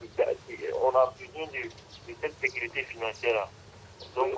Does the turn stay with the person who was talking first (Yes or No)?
No